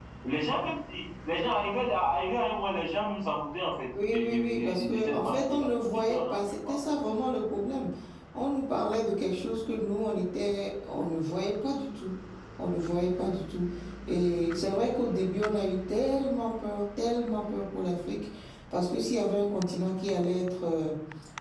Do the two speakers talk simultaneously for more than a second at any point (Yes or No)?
Yes